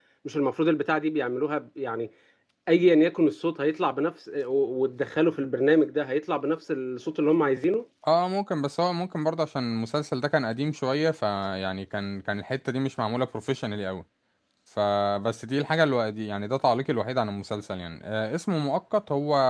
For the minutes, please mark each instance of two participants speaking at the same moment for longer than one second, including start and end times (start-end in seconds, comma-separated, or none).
none